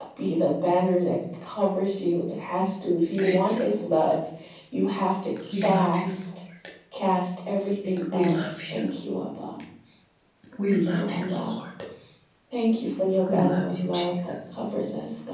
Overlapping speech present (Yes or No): Yes